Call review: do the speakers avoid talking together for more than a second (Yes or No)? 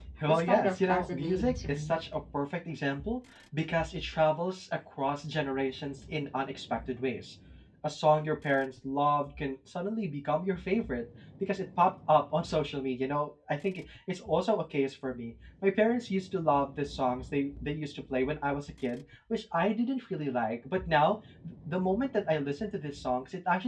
No